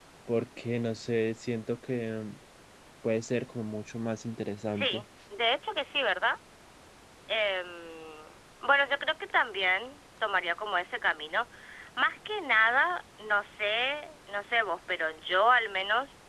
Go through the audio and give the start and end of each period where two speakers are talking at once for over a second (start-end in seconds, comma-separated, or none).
none